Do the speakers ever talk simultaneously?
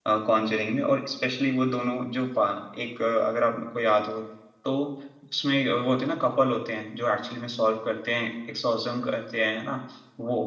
No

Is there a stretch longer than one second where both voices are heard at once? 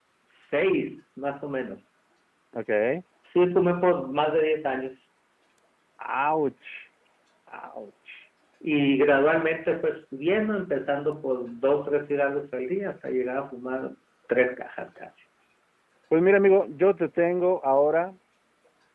No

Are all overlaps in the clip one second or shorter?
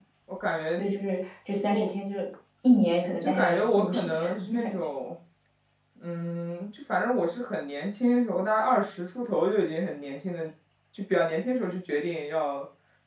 No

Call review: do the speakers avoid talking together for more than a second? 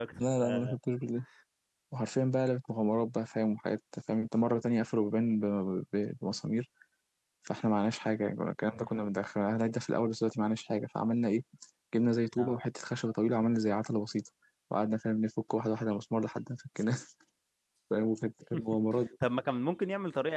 Yes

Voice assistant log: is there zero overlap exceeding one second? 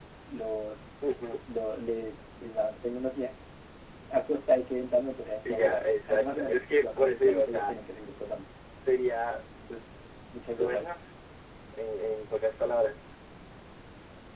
No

